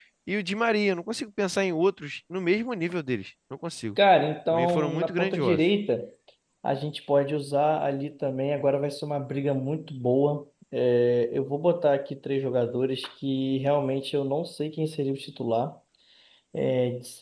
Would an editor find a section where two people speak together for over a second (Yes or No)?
Yes